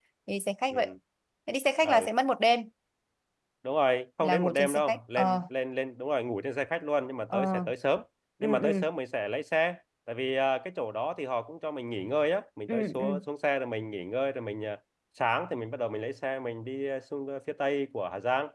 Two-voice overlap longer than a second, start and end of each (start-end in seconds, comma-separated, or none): 4.2-5.4